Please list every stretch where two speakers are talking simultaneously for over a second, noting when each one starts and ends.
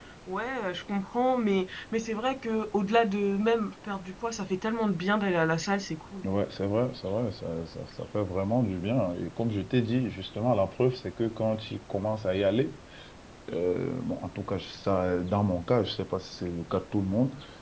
none

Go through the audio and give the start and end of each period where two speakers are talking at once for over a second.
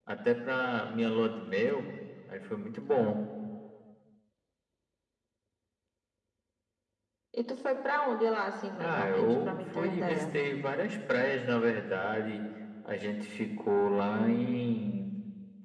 8.7-10.2

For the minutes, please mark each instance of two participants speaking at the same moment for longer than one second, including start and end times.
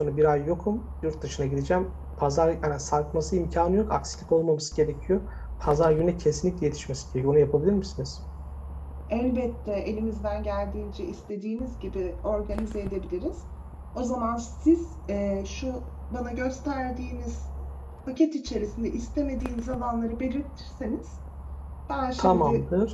none

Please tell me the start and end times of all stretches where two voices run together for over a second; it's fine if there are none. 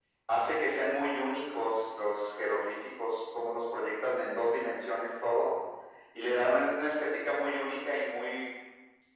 none

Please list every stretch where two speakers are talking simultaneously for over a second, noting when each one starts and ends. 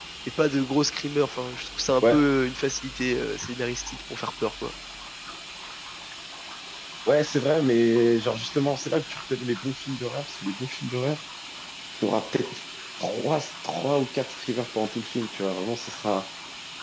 none

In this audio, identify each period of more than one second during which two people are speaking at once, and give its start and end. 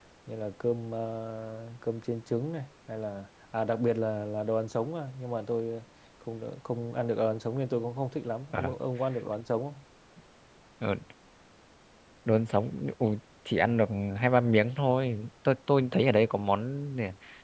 none

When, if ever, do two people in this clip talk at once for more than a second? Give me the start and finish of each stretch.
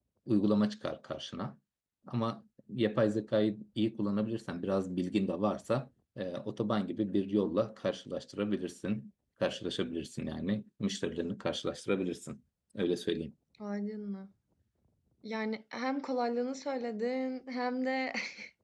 none

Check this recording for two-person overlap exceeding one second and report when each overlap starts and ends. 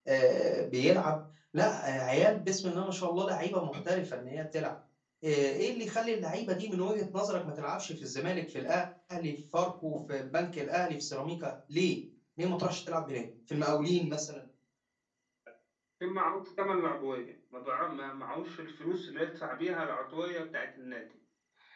none

